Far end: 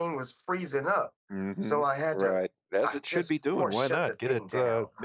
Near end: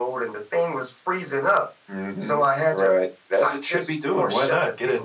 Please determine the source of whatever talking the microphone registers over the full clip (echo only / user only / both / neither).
echo only